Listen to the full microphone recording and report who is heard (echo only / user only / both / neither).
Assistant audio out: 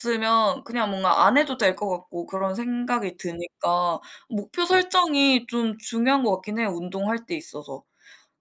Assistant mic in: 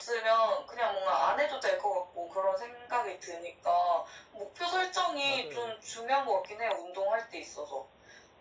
both